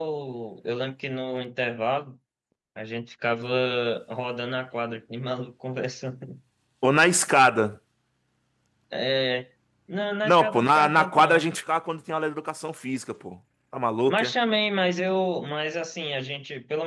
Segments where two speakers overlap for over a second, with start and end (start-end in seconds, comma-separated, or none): 10.2-11.4